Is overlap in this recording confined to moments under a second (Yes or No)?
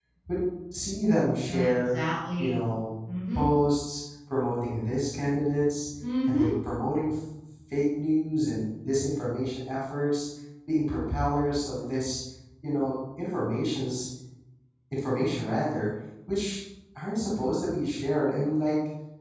Yes